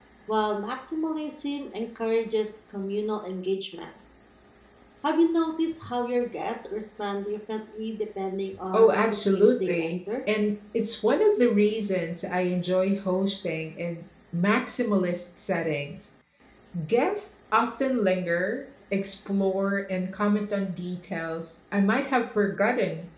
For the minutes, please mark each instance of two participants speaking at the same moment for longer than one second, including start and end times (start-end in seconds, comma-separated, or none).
8.7-10.0